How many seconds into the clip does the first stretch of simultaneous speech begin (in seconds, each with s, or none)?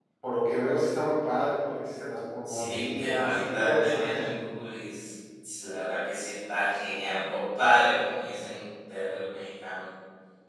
2.4 s